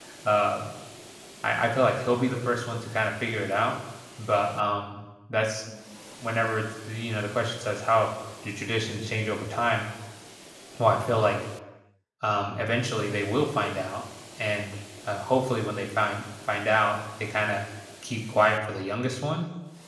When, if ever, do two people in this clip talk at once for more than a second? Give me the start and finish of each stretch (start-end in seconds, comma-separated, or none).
none